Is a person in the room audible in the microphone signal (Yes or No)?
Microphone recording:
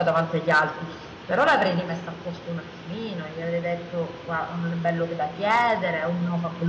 Yes